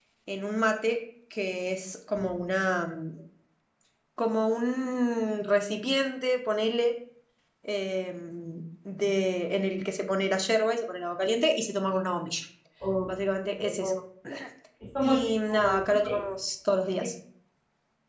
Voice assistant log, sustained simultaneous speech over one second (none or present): present